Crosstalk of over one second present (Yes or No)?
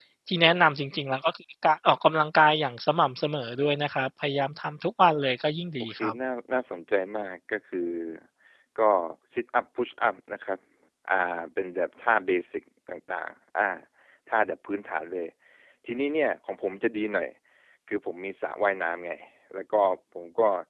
No